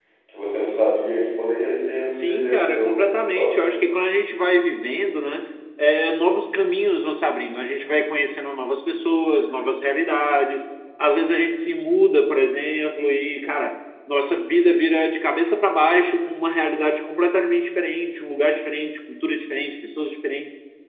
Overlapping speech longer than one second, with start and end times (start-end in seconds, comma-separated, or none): 2.2-3.7